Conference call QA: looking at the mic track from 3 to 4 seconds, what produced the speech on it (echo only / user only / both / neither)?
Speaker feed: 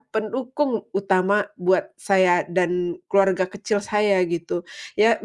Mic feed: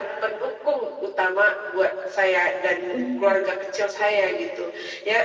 both